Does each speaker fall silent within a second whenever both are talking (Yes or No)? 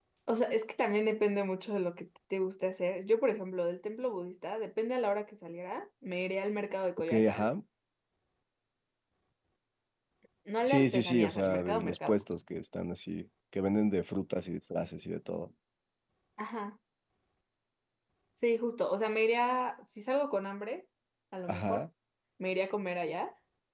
No